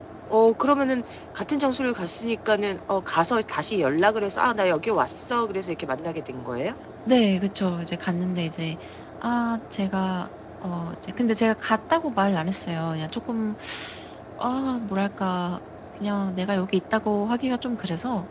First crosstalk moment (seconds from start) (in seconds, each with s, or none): none